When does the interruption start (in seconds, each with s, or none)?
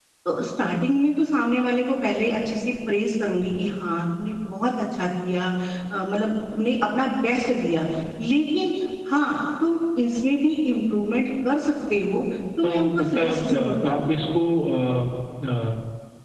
12.6 s